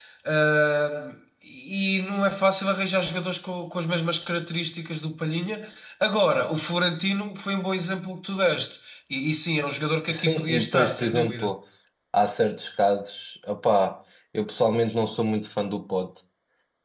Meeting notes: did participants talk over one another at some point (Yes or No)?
Yes